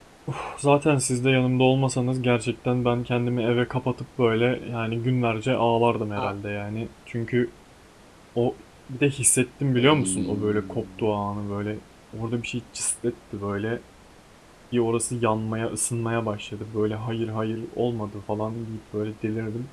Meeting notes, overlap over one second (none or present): present